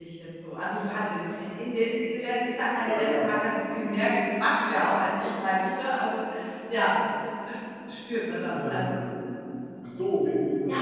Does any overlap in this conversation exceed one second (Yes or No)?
No